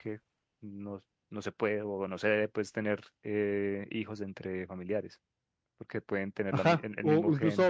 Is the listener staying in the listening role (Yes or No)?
No